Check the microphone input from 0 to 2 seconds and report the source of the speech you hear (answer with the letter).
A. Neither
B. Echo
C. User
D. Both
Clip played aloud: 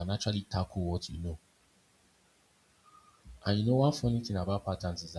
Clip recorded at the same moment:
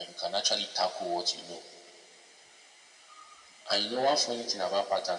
B